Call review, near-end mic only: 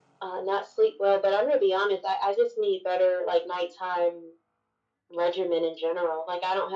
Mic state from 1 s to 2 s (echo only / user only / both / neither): echo only